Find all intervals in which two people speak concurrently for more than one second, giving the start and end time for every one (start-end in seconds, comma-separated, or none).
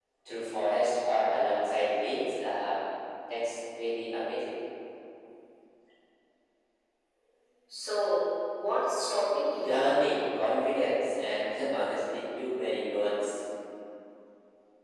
none